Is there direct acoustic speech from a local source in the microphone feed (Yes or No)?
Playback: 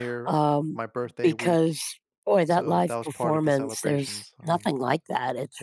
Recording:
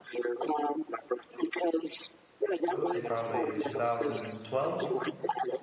Yes